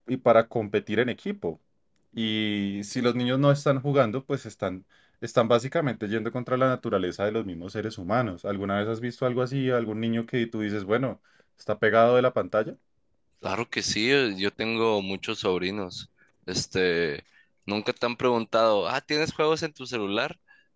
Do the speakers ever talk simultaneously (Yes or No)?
No